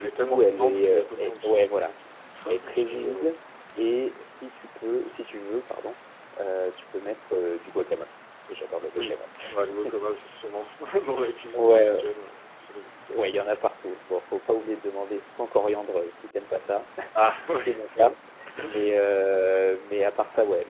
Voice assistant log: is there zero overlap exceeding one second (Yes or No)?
No